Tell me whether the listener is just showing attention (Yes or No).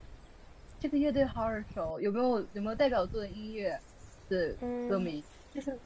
No